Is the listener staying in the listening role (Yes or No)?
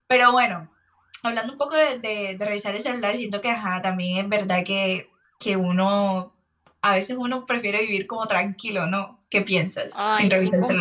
No